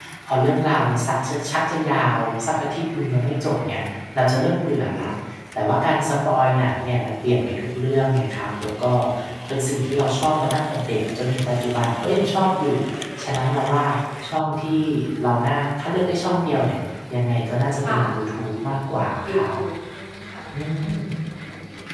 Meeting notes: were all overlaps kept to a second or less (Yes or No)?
Yes